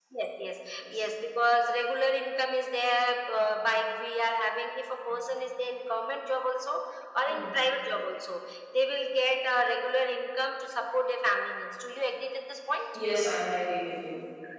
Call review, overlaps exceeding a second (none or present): none